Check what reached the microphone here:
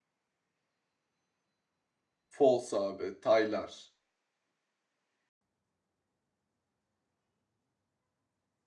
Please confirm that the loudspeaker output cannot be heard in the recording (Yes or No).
Yes